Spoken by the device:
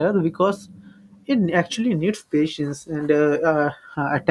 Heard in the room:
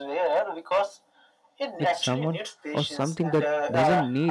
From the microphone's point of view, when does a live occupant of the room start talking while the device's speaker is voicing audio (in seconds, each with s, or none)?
1.8 s